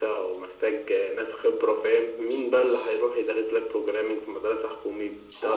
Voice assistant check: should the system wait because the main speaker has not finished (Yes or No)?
No